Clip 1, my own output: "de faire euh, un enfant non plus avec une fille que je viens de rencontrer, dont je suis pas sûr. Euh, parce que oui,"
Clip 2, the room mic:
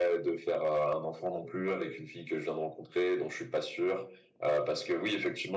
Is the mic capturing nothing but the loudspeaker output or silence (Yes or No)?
Yes